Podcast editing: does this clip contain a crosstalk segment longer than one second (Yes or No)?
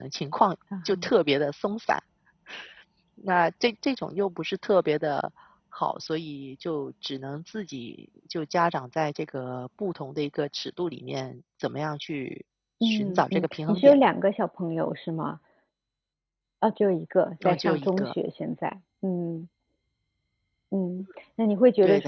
Yes